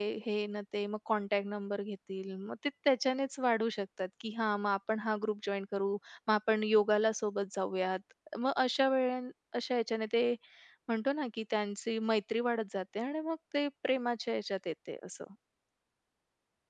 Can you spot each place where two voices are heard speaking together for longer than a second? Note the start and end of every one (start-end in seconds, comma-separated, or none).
none